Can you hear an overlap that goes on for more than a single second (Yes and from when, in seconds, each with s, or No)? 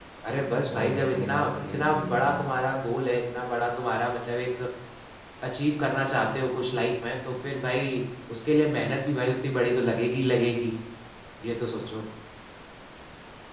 Yes, from 0.7 s